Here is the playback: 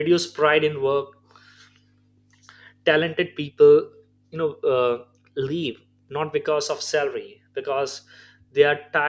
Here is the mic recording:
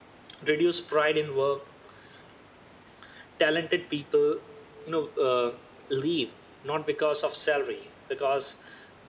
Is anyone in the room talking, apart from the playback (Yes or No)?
No